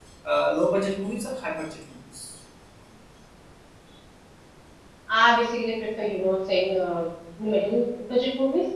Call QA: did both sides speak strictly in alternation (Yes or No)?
Yes